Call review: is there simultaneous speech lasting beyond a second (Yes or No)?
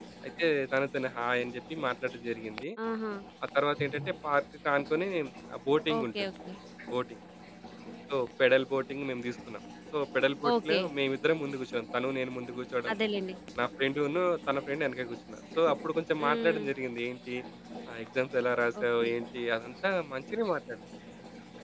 No